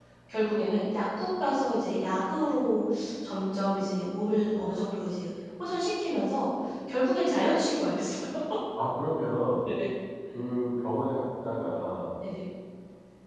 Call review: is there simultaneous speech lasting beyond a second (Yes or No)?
No